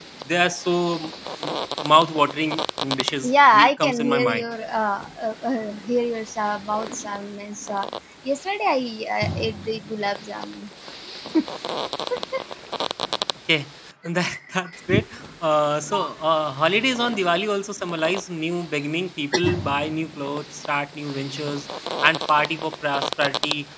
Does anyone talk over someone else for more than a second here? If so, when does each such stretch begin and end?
3.2-4.5

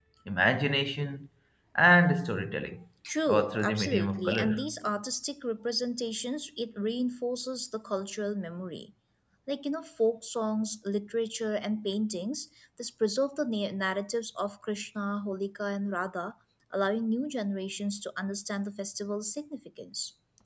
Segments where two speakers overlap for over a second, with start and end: 3.3-4.7

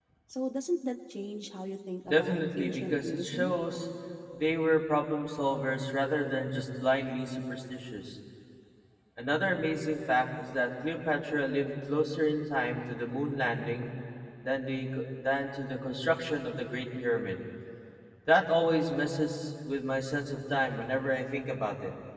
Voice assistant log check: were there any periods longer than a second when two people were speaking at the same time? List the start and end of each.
2.1-3.5

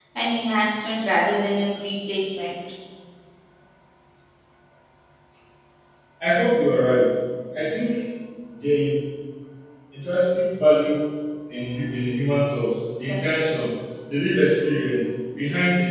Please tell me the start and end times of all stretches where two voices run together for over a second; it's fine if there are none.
none

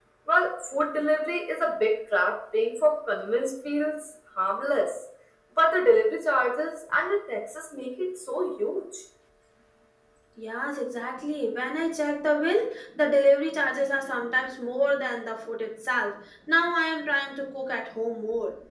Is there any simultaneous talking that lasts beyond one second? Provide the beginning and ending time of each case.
none

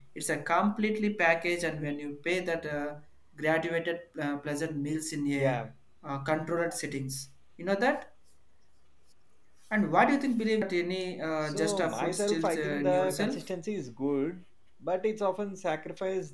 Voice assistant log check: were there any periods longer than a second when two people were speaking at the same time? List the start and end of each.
11.4-13.5

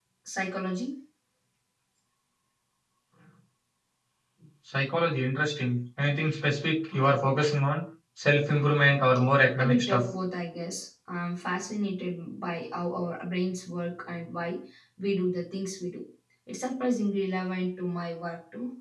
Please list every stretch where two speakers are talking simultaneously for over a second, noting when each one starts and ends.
none

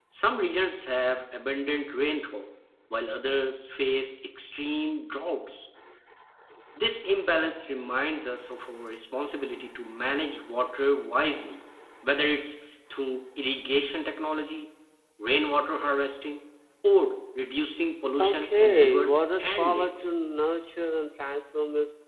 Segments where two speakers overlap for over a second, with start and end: 18.2-20.1

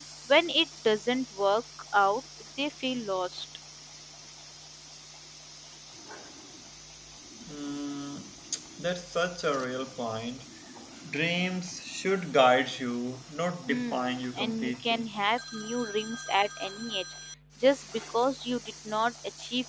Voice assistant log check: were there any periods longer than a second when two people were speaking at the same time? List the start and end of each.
13.7-15.0

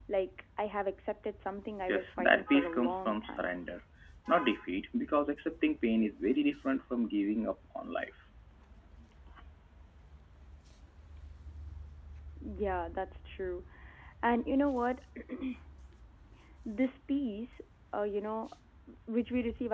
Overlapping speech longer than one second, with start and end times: 1.9-3.5

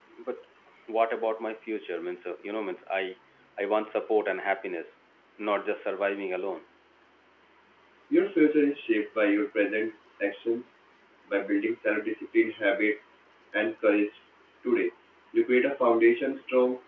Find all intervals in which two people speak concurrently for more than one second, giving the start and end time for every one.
none

